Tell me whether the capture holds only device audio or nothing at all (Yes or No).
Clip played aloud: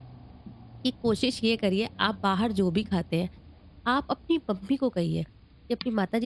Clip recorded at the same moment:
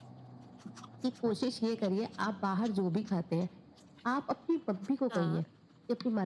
No